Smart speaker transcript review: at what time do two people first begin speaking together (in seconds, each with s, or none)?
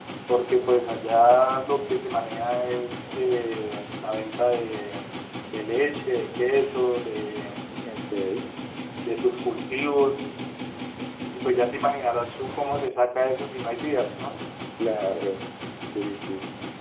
none